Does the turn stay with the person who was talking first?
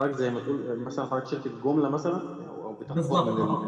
No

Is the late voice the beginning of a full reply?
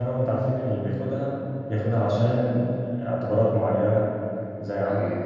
No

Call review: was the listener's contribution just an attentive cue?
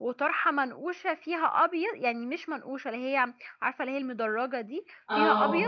Yes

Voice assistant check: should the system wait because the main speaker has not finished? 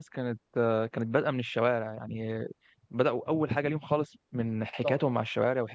Yes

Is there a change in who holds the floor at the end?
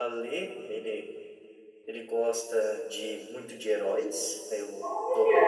No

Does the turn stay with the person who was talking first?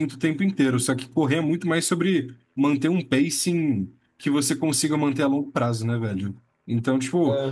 Yes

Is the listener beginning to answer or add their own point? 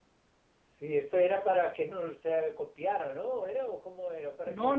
Yes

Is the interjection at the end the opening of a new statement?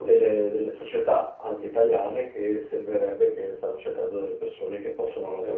No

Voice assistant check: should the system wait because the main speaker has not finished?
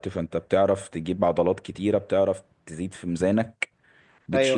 Yes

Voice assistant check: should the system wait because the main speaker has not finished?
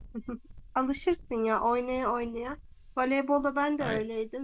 Yes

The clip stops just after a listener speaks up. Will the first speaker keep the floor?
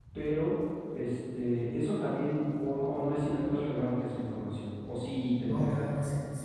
No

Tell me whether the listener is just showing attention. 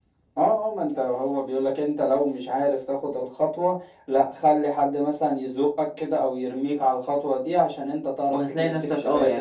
No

